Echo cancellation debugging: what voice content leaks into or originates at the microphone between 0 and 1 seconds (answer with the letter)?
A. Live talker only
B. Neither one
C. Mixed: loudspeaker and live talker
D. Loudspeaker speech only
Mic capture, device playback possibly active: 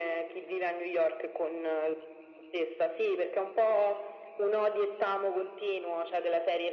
D